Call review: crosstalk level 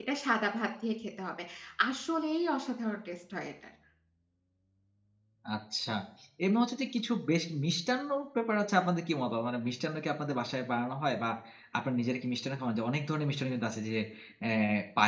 none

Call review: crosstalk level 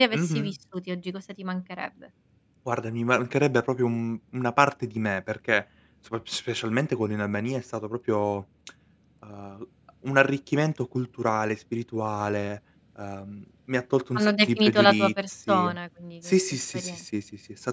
present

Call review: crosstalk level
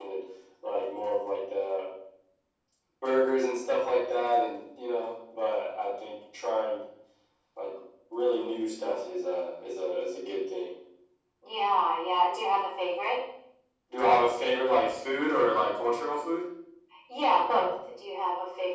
none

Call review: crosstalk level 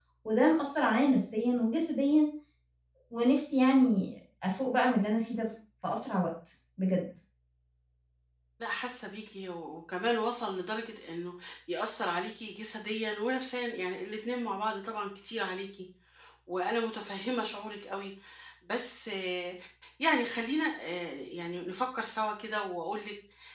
none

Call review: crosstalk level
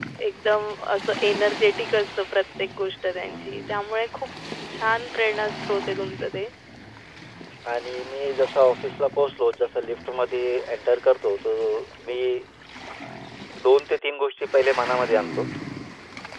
none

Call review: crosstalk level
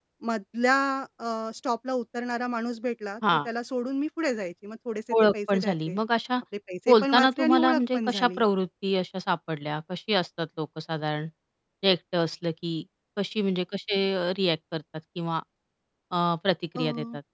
present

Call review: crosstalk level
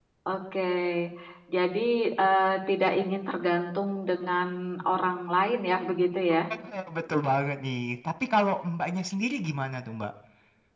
none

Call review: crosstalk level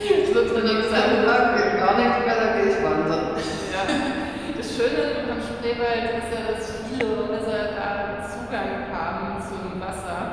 present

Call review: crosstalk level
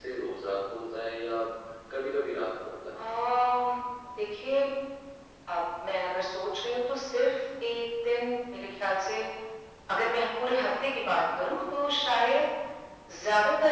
none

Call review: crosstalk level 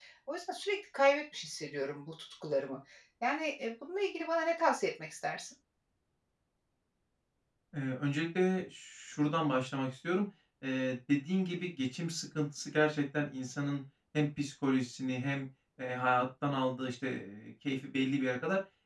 none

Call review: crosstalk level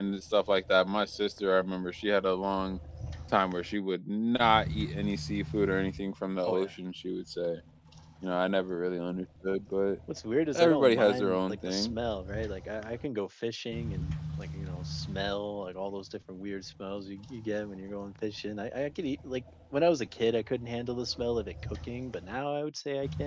present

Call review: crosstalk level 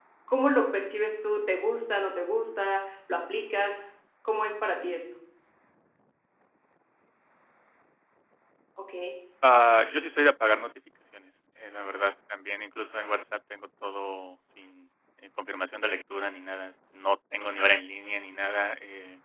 none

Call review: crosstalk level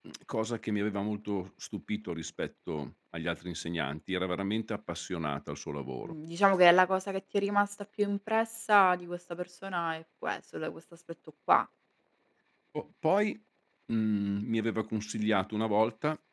none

